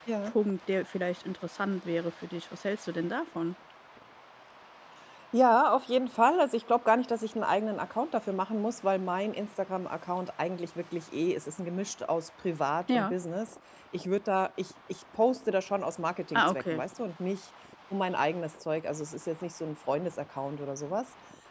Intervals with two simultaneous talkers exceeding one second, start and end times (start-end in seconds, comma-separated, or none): none